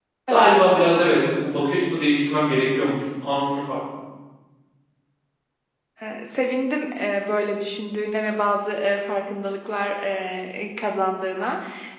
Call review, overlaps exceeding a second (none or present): none